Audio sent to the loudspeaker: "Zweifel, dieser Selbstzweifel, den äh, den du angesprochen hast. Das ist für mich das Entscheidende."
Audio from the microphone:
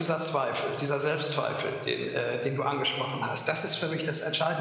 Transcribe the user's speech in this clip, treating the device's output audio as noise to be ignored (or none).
none